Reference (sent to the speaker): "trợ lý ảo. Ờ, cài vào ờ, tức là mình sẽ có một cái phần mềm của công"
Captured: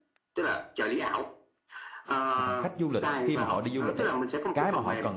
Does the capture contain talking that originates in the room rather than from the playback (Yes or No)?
Yes